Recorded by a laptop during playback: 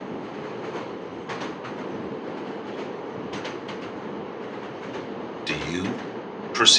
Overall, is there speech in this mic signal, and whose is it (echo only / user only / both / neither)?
user only